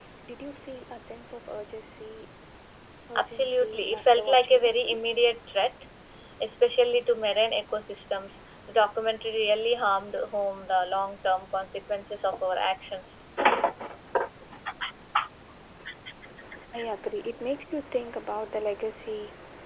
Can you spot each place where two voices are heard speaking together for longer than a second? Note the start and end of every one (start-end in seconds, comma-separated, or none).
3.2-4.7